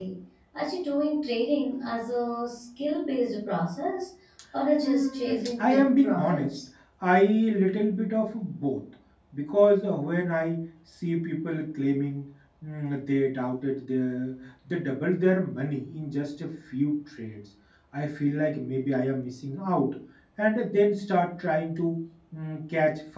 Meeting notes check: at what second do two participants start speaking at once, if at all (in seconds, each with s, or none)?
4.8 s